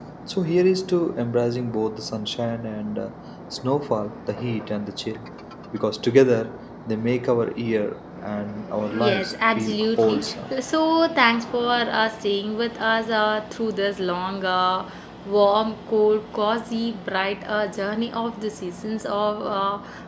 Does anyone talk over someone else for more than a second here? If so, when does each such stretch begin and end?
9.0-10.2

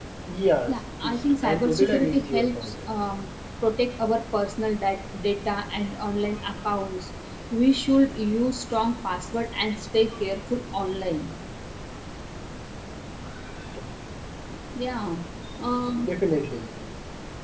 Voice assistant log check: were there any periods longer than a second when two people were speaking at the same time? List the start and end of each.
0.7-2.7

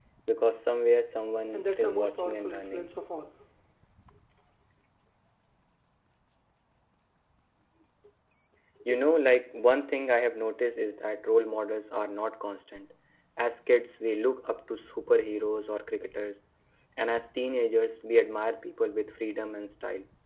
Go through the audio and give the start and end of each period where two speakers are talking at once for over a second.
1.5-2.9

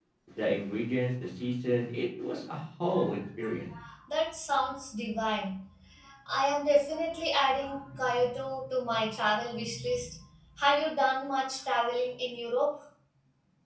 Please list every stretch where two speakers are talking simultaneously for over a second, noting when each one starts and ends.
none

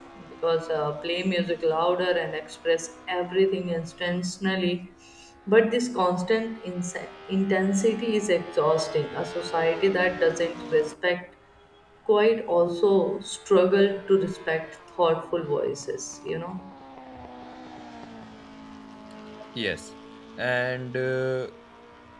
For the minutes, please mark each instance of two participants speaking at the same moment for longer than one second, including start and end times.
none

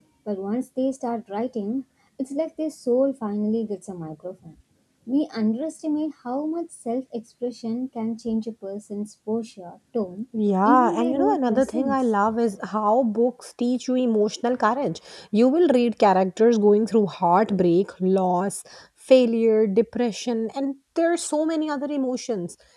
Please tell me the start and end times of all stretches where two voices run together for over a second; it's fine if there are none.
10.6-12.0

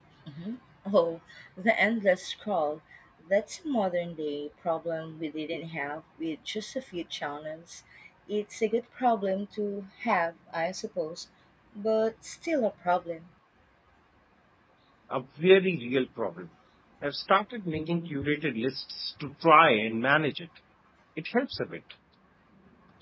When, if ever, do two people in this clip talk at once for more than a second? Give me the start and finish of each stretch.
none

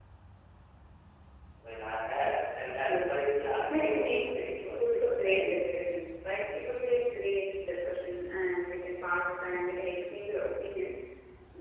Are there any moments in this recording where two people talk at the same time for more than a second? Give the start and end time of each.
3.7-5.6

